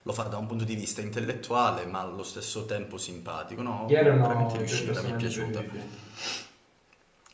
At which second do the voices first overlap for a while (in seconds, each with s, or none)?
3.9 s